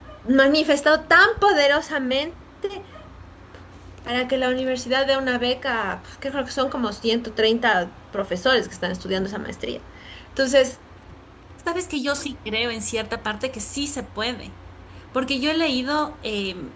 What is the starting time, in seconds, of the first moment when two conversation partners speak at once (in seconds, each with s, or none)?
none